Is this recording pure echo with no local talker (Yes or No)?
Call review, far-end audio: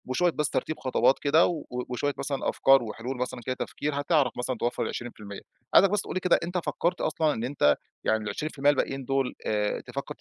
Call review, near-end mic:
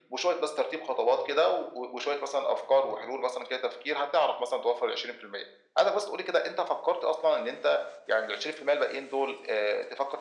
Yes